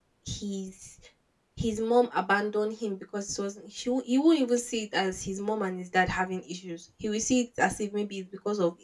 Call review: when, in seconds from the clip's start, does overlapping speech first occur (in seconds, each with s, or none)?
none